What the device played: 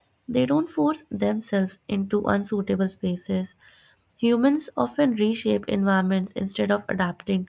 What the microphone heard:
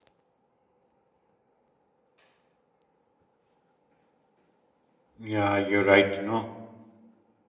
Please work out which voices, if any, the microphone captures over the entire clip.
user only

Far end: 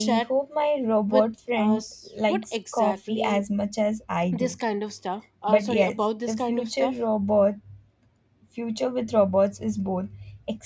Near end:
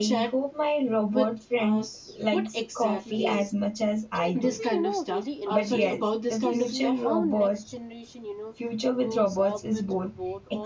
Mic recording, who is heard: both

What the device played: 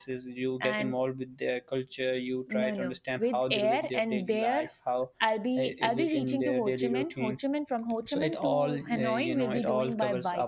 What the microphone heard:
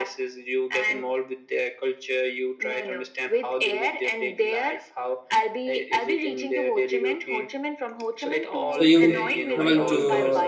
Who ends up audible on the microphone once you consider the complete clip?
both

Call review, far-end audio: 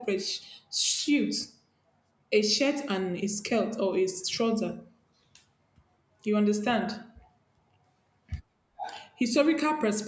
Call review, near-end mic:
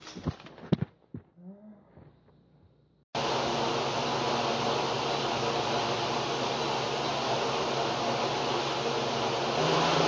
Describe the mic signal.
neither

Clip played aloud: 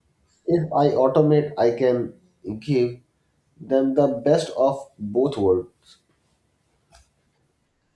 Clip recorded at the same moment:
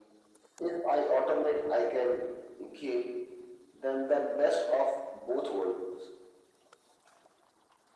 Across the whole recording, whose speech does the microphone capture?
echo only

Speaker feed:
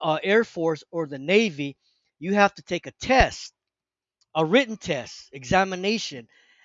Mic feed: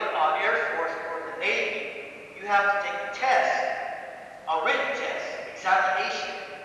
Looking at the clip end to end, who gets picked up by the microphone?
echo only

